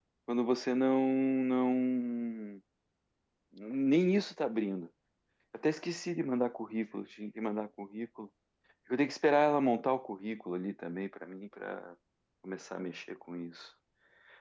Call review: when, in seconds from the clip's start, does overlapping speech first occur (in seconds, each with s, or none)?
none